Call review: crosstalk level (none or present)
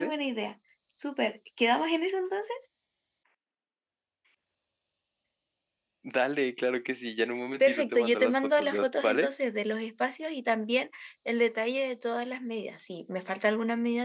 present